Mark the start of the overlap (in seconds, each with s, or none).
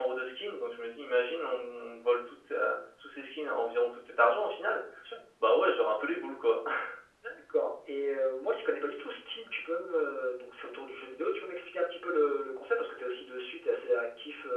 none